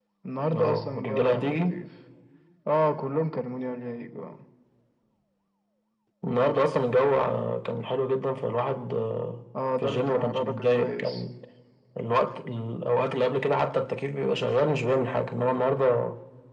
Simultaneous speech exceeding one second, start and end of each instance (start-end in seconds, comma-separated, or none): 0.5-1.7, 9.8-11.2